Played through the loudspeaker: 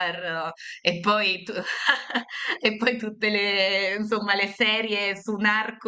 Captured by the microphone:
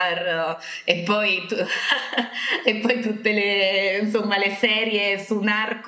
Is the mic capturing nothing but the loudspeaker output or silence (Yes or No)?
Yes